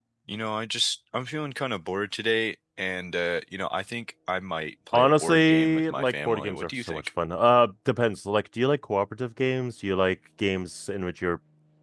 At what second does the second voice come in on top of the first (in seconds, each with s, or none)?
4.9 s